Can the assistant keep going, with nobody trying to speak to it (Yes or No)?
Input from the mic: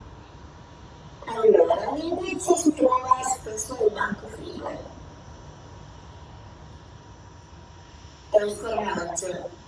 Yes